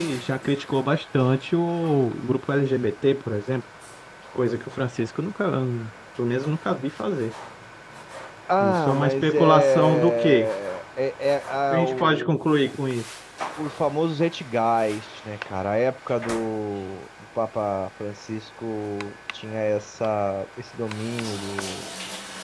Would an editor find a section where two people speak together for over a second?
Yes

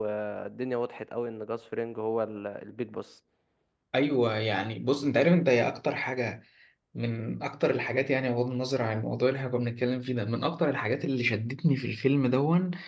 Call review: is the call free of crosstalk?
Yes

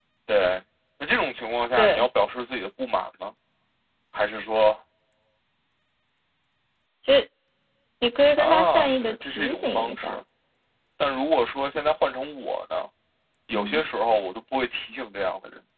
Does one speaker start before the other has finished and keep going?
Yes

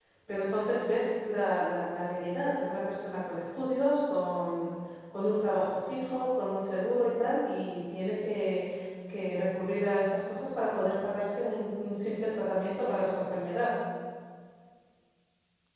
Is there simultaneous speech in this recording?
No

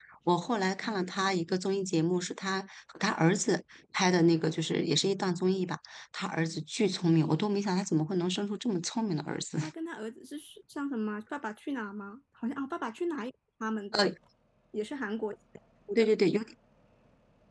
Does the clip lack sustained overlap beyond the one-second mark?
Yes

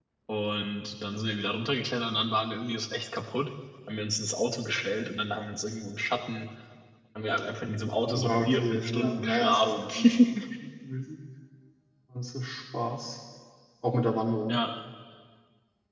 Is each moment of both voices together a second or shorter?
No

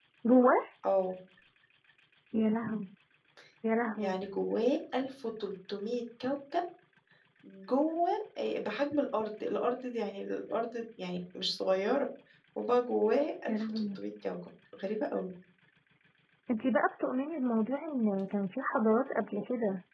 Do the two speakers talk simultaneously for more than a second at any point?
No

